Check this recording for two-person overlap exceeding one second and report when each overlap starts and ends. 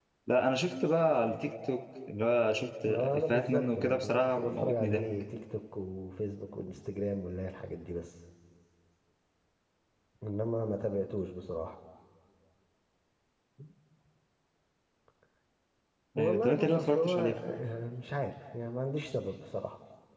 2.8-5.0, 16.2-17.4

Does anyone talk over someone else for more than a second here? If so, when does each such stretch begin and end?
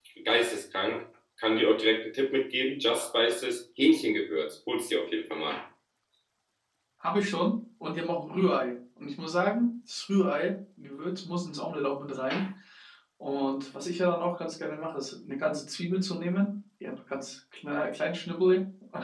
none

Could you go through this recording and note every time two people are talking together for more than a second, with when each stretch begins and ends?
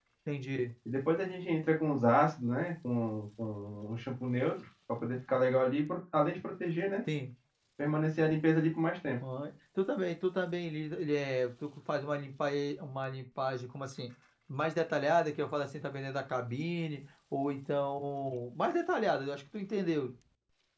none

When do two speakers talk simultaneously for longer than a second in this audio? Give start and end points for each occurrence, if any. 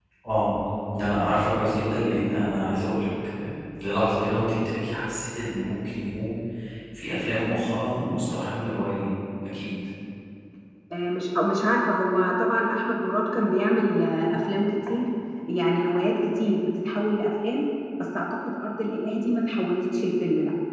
none

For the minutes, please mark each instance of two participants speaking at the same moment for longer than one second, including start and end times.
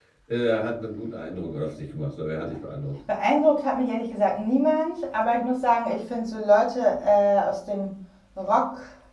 none

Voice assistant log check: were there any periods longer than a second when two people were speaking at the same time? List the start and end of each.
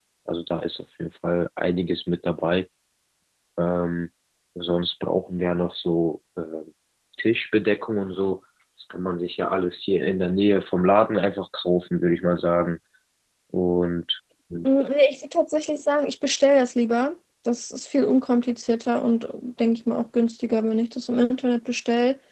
none

